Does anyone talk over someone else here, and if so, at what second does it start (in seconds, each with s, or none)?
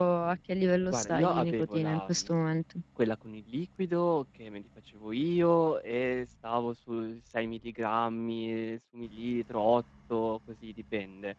0.9 s